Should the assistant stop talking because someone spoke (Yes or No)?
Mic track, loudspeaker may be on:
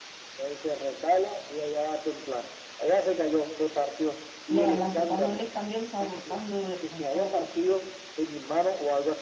Yes